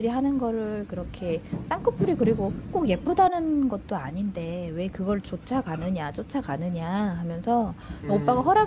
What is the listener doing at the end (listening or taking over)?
listening